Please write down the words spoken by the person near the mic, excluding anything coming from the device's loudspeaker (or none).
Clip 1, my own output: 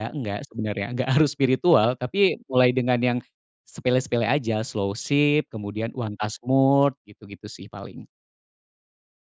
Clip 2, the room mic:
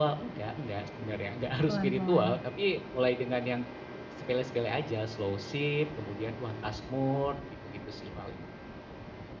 Pelan-pelan.